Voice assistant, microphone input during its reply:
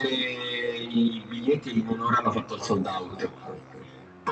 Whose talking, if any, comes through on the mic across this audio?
echo only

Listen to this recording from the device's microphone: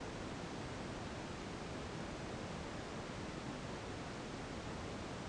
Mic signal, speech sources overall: neither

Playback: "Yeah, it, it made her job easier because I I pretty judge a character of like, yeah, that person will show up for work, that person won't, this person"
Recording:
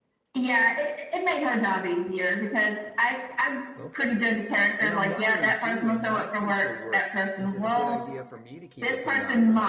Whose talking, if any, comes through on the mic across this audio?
both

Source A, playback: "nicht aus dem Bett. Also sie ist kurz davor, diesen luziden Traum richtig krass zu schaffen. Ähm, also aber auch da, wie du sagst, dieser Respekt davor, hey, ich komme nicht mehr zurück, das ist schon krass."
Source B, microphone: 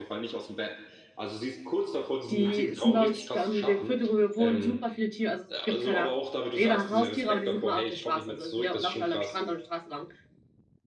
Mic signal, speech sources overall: both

